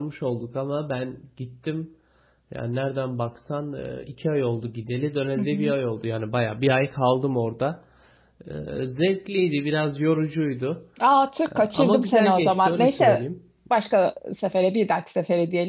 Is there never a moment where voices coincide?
No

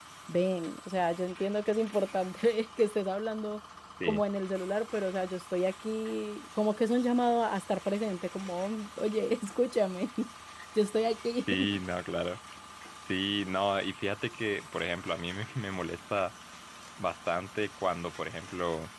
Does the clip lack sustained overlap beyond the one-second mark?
Yes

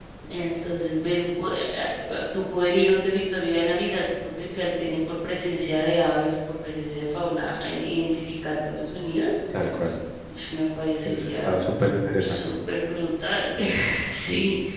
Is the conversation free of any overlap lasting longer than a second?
Yes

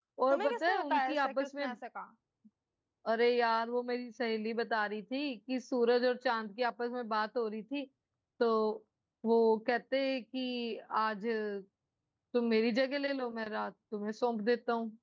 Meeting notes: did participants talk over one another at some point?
Yes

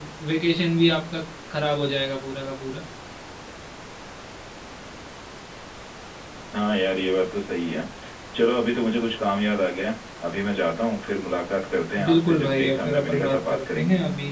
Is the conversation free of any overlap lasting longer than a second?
No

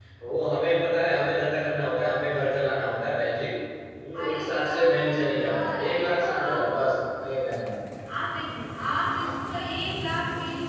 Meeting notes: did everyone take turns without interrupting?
No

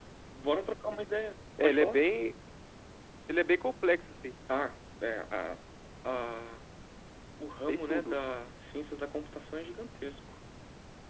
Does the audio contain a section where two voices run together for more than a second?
No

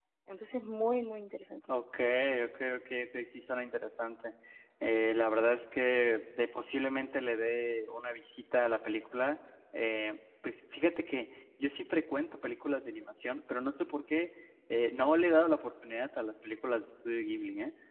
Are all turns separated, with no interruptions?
Yes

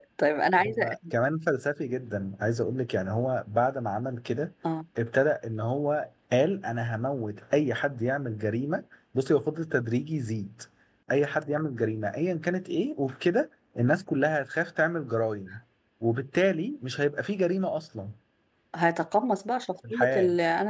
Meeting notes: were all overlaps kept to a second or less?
Yes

